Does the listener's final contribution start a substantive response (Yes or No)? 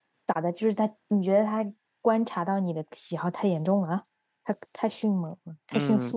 Yes